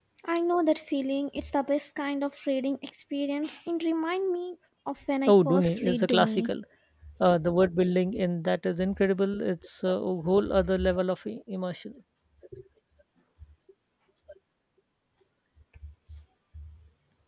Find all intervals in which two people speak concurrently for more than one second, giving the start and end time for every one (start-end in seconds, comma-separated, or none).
5.3-6.5